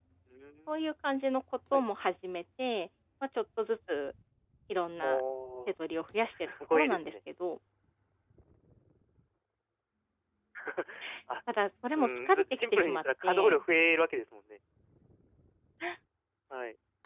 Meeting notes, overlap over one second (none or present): present